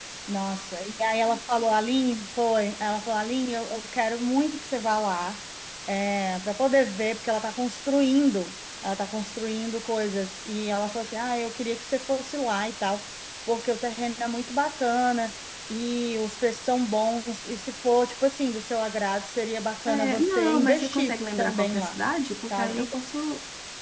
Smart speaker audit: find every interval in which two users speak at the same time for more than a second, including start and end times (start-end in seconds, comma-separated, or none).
19.9-22.0